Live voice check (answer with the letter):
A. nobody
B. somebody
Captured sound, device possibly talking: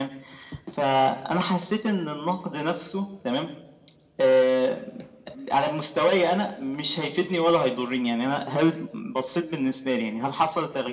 A